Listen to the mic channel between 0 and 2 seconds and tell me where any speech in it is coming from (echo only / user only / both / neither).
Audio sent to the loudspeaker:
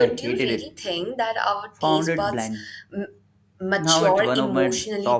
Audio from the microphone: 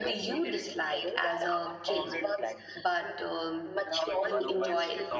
both